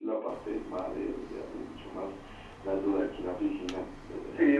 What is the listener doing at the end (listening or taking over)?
taking over